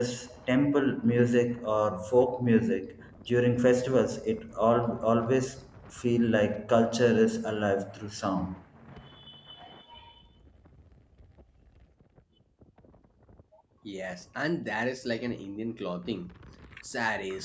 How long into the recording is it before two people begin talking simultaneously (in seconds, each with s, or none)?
none